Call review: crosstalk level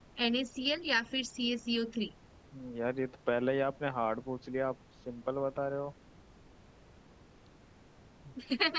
none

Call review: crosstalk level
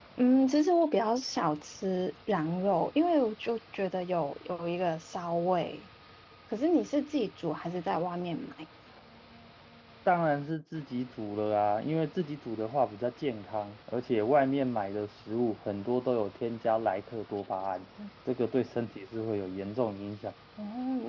none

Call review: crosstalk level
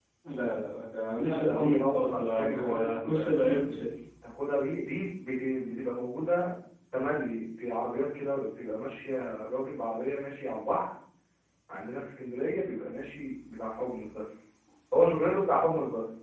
present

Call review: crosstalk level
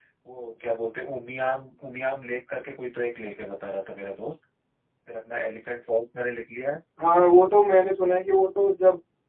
none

